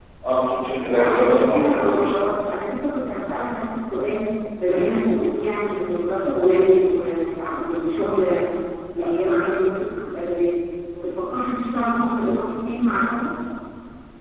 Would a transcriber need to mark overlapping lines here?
Yes, from 0.9 s

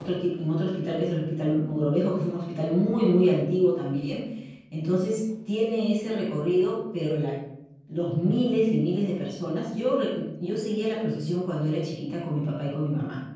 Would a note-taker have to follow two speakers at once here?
No

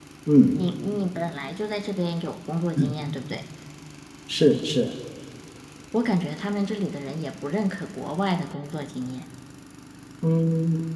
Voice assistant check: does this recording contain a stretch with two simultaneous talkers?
No

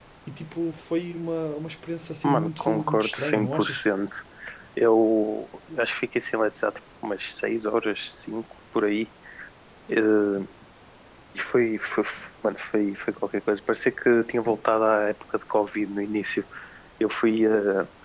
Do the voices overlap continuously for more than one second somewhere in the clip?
Yes, from 2.2 s

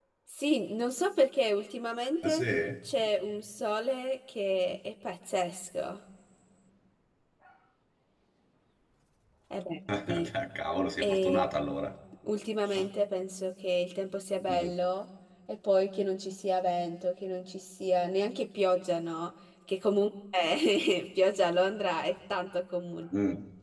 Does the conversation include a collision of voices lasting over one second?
No

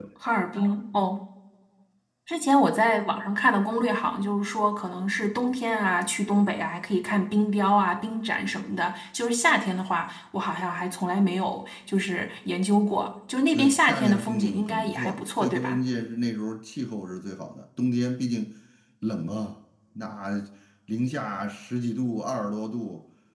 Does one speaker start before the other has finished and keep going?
Yes, from 13.5 s

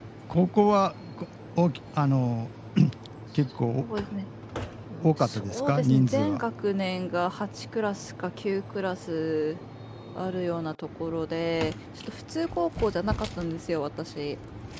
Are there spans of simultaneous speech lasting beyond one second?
Yes, from 5.2 s

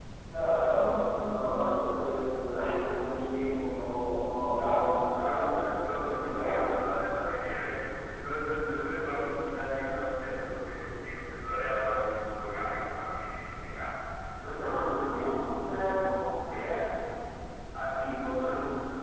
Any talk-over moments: Yes, from 5.1 s

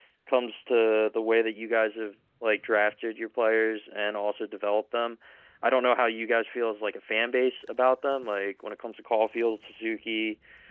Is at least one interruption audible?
No

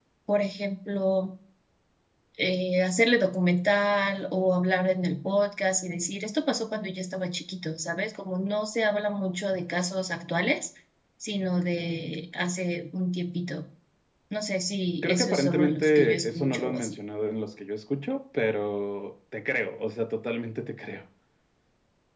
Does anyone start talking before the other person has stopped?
Yes, from 15.0 s

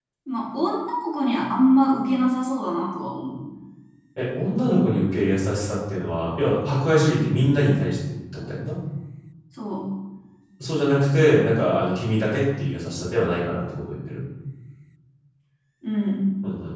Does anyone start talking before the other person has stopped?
No

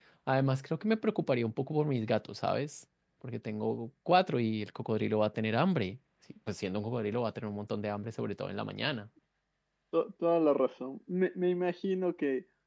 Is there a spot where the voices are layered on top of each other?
No

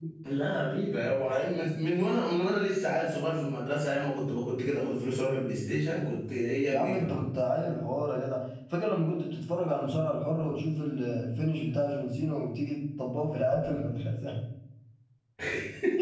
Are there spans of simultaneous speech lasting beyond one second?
No

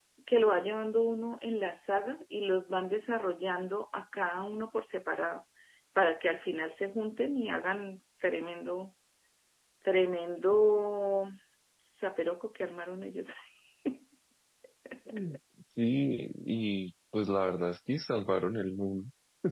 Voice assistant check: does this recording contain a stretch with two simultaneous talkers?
No

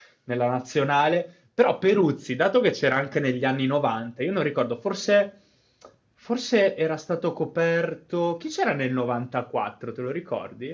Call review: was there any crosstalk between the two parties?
No

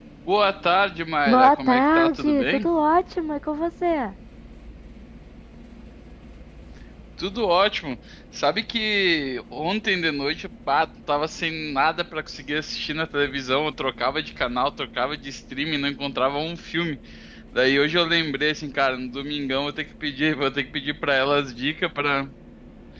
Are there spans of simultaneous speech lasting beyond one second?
Yes, from 1.2 s

